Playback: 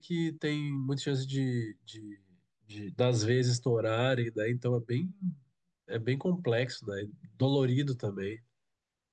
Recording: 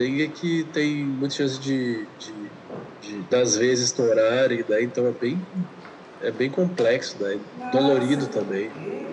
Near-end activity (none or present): present